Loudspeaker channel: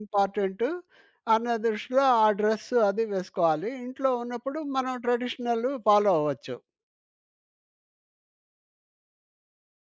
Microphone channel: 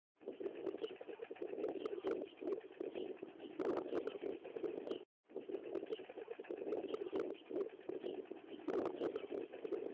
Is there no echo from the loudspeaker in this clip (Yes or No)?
Yes